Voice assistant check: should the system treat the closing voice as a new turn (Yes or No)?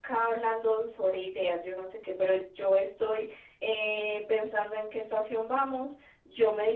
No